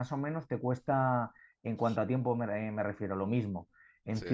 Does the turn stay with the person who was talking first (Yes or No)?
Yes